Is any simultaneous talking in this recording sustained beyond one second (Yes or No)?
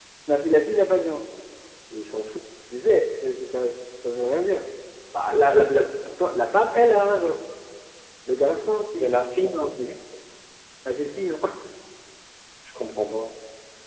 No